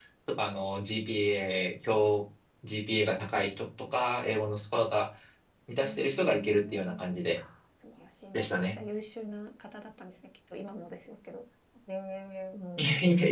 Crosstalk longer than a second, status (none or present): present